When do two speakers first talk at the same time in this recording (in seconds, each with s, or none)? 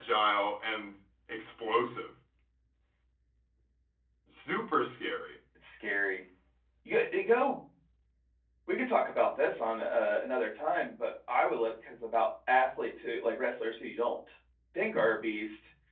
none